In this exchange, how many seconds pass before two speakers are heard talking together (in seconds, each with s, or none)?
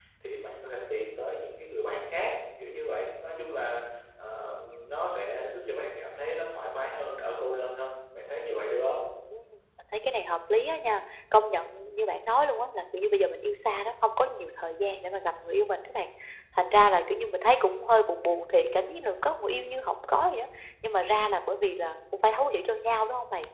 none